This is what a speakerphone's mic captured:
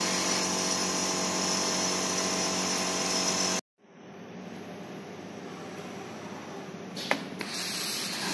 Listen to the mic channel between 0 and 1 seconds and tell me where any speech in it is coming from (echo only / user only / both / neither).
neither